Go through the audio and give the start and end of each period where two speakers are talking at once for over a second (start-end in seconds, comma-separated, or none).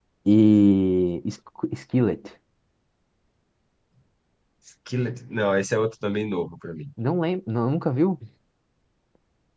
none